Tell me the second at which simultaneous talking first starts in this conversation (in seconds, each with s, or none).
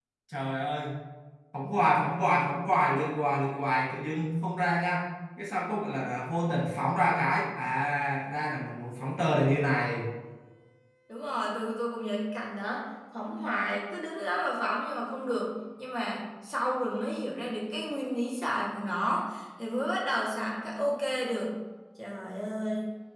none